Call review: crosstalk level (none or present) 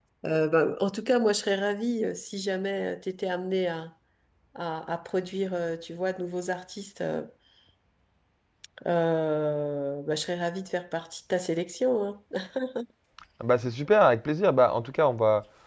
none